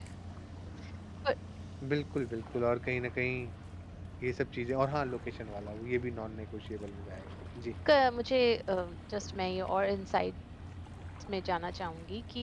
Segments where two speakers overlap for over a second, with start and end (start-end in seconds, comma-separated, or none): none